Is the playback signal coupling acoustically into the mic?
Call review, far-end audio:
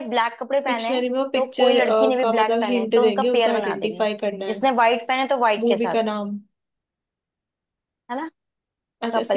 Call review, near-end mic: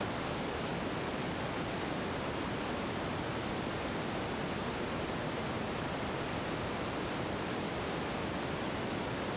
No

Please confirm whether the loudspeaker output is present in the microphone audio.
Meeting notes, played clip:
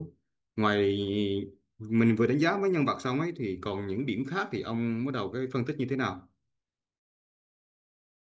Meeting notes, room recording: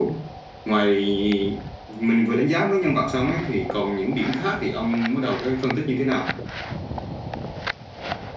Yes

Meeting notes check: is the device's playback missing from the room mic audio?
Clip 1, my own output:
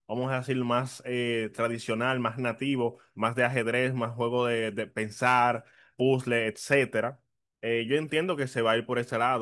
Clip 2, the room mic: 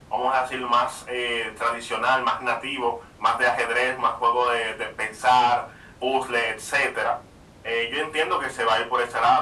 No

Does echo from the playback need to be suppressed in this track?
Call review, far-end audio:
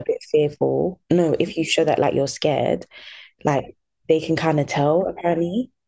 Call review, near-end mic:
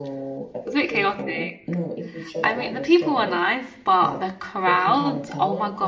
Yes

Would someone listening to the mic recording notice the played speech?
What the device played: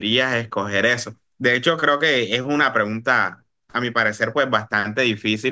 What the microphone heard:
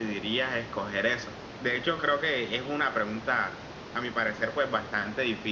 Yes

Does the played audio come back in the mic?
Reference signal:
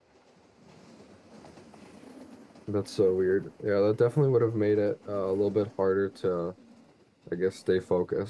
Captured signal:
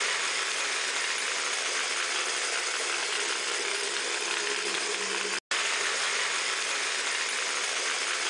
No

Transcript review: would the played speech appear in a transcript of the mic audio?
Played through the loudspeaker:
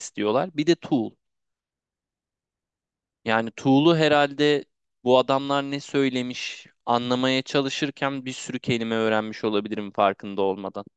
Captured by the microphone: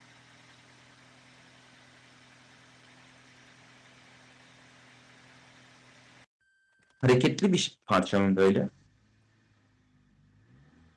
No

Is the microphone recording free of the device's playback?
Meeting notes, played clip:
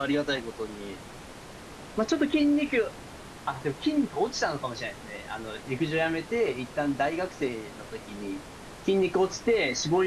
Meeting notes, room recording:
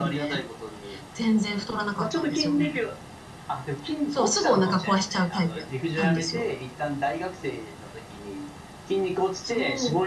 No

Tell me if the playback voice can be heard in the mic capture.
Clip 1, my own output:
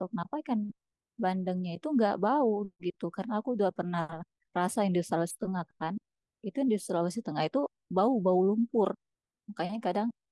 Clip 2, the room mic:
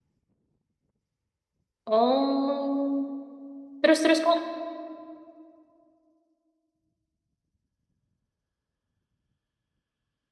No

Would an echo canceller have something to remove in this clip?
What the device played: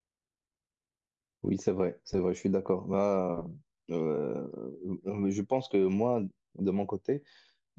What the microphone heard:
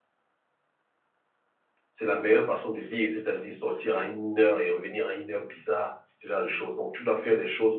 No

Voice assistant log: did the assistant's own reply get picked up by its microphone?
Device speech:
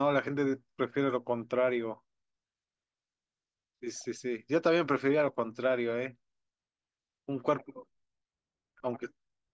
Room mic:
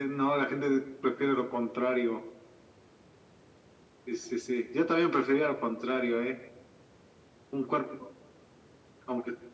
Yes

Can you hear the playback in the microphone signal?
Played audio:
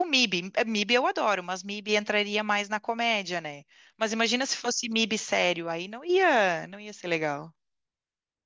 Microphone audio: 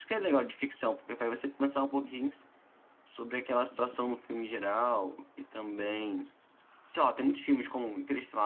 No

